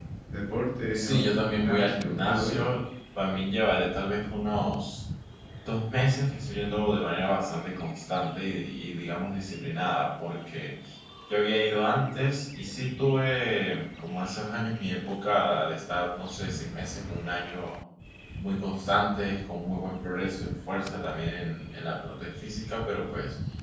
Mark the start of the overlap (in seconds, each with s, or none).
0.9 s